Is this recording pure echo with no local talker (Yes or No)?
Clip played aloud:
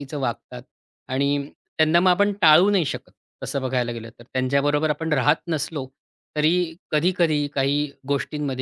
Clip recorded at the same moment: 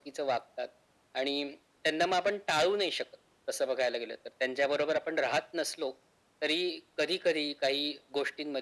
Yes